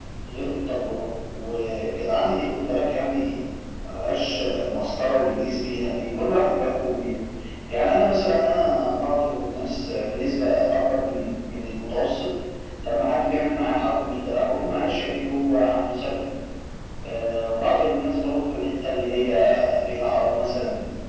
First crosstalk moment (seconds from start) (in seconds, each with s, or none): none